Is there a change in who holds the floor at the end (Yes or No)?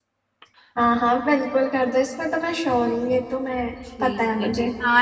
Yes